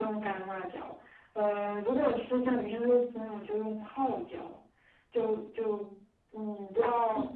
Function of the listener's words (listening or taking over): listening